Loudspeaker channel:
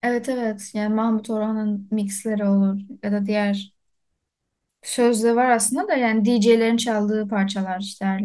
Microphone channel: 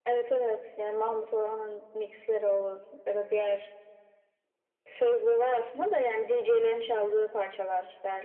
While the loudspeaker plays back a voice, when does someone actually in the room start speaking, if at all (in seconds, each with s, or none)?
none